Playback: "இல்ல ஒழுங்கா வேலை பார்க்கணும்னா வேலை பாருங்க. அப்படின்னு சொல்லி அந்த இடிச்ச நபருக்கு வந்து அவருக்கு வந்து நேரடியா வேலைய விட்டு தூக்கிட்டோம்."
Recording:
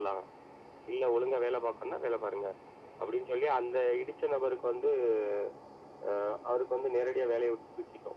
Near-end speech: none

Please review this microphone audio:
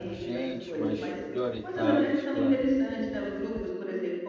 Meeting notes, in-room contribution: present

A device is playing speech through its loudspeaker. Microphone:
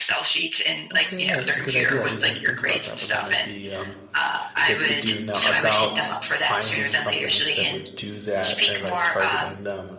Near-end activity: present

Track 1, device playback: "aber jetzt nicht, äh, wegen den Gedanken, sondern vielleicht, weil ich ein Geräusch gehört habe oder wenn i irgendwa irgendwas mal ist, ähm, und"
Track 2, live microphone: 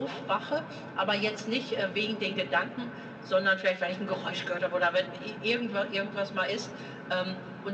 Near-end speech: none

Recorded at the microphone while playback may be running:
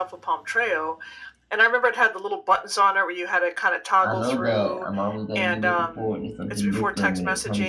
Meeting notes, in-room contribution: present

